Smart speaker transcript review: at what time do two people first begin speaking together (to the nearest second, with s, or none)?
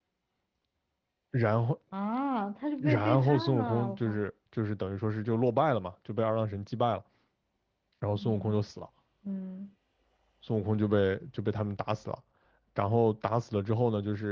3 s